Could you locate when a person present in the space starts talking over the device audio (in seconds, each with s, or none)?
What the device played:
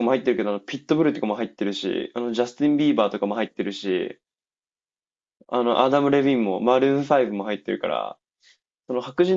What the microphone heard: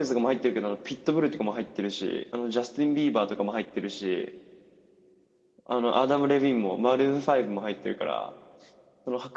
none